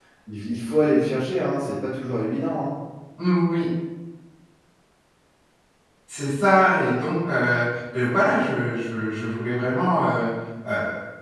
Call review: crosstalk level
none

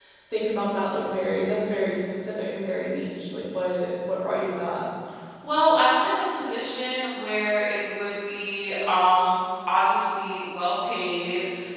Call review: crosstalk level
none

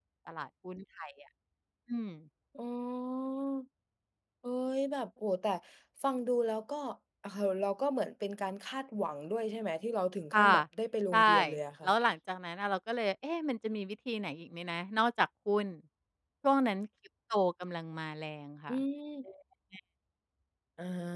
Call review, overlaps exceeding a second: none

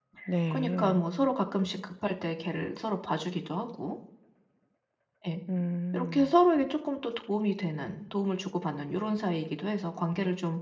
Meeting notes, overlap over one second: none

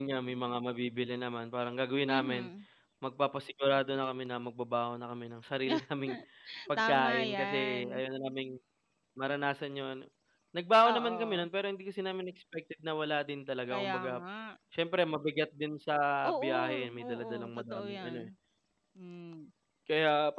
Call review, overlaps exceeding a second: present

